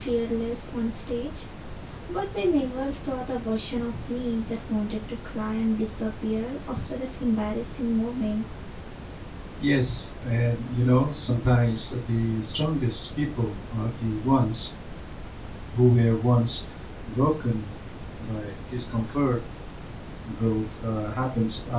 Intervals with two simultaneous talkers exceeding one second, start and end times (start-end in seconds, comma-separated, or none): none